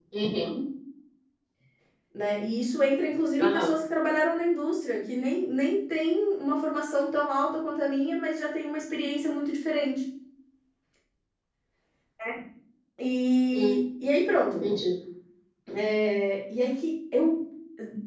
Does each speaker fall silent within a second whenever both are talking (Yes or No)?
Yes